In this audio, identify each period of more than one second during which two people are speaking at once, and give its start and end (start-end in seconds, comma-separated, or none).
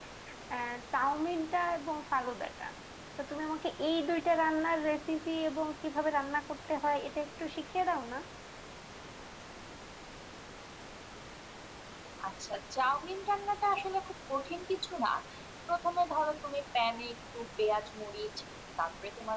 none